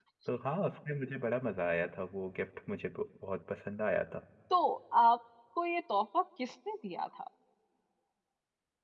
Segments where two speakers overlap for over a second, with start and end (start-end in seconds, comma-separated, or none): none